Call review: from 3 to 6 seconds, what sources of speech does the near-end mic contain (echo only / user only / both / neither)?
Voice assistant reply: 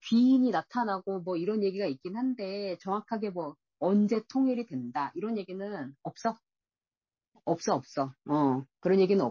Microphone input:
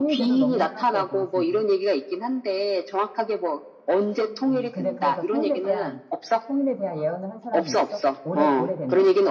both